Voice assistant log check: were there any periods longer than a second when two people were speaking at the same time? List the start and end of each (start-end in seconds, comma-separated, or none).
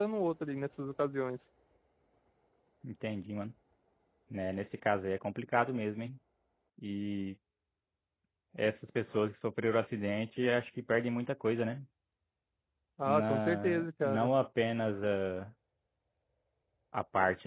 13.0-14.3